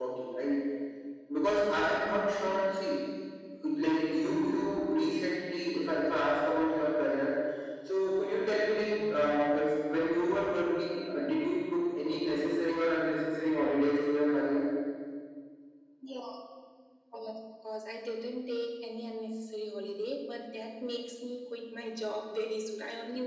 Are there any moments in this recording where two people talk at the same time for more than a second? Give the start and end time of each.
none

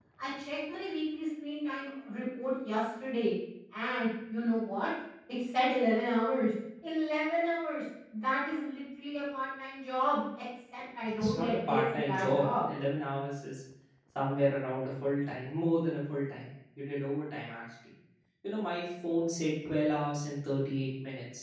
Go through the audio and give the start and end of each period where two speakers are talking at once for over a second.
11.2-12.4

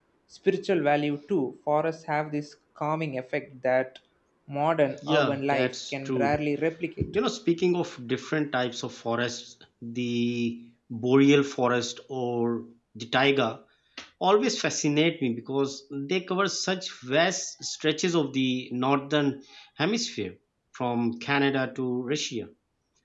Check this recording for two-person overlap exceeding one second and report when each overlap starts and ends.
5.1-6.4

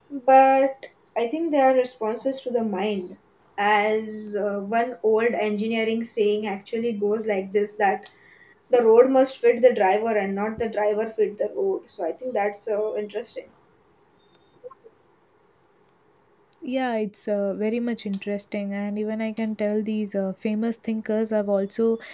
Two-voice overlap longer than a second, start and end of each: none

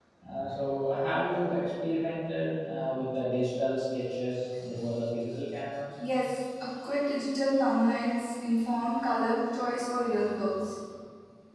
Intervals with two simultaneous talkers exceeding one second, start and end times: none

